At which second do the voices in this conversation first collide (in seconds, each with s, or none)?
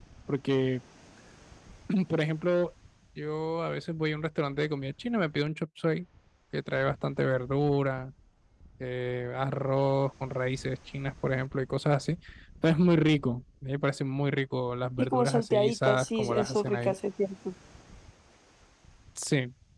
15.0 s